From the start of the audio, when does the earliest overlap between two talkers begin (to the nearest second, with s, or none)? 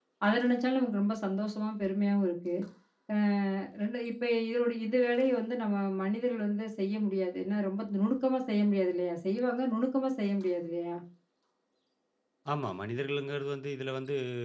none